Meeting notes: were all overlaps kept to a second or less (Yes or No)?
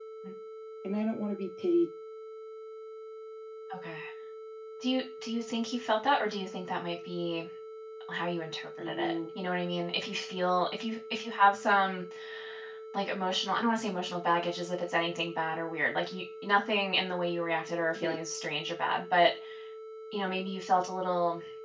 Yes